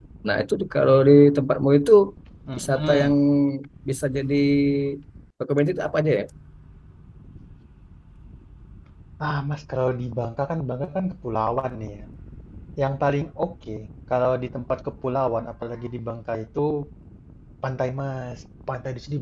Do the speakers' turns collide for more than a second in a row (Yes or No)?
No